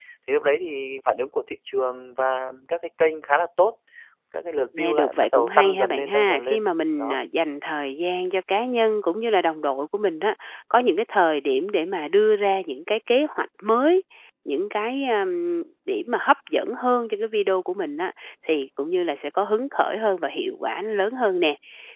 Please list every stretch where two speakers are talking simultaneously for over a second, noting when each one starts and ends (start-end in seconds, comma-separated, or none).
4.8-6.6